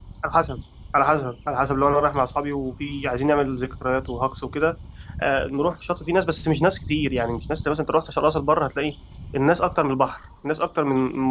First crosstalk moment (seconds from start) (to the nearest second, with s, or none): none